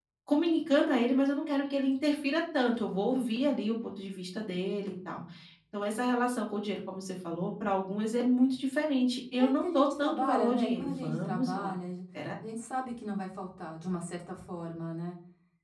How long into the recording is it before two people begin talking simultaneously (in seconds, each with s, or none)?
9.4 s